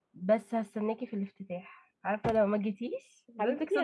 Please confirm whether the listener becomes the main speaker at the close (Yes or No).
Yes